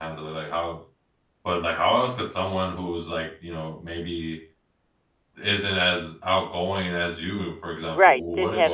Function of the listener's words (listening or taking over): taking over